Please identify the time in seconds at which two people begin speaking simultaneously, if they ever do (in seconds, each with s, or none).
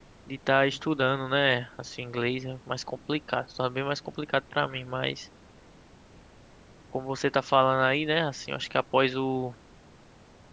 none